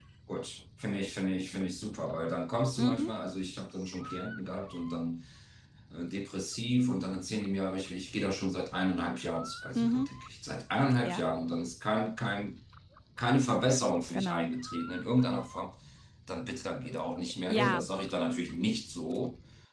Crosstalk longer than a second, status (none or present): none